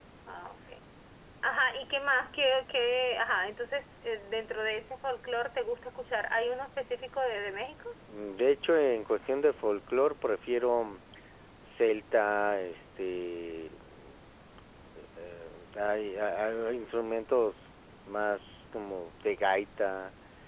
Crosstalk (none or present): none